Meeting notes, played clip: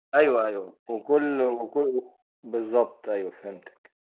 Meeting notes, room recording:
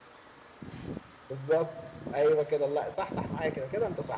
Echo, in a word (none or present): none